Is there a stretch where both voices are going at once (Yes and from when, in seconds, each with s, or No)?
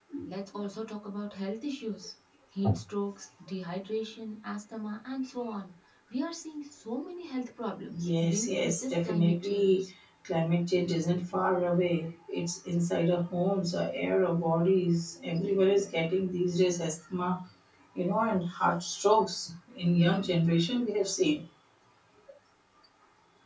Yes, from 7.9 s